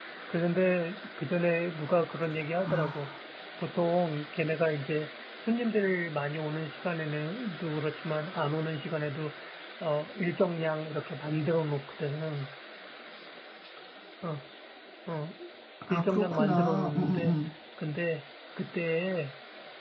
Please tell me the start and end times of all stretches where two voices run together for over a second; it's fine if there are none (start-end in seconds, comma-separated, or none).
15.9-17.4